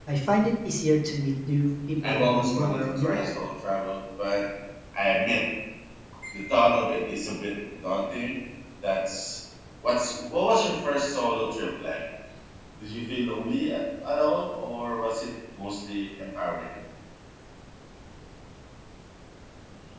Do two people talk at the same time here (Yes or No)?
Yes